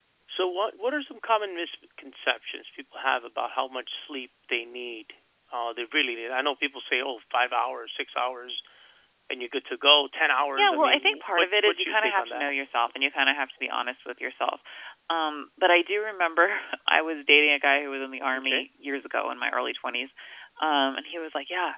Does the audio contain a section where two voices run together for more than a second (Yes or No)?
Yes